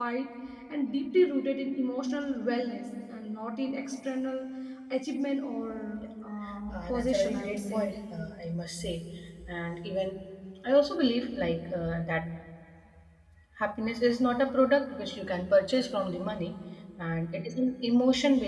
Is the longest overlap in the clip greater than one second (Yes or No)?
Yes